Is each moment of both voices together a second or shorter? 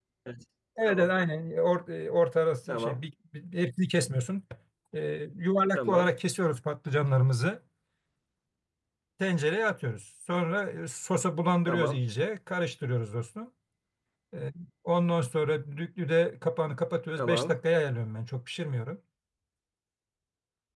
Yes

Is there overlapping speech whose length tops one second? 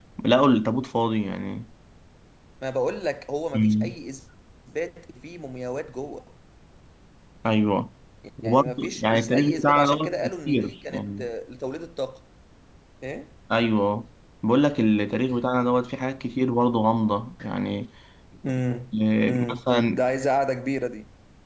Yes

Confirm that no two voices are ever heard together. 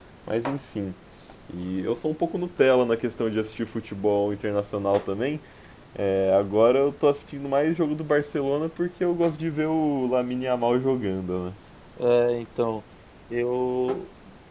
Yes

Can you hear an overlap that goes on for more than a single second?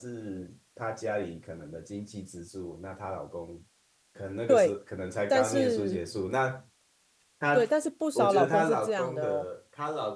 Yes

